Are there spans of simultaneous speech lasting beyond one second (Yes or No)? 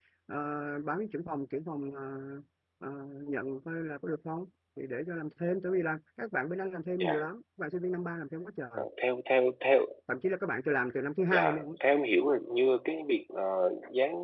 No